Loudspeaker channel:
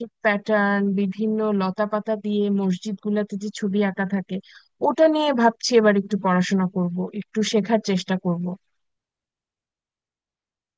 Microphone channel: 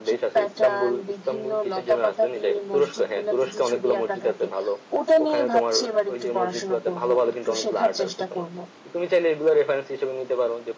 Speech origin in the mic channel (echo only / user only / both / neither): both